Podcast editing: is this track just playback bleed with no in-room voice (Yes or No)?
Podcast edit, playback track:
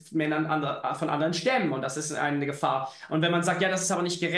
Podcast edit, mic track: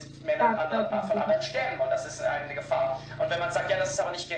No